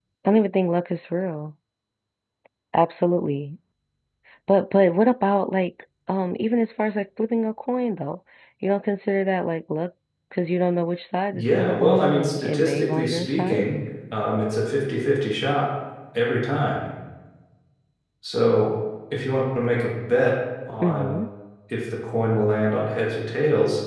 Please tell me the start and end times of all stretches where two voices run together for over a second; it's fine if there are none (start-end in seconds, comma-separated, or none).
11.3-13.6